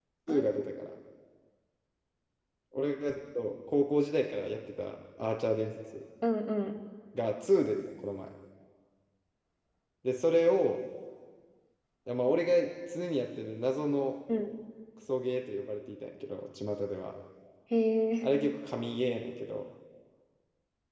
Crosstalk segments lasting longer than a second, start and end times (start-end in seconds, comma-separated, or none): none